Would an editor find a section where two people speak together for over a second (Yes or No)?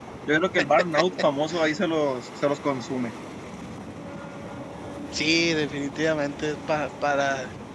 No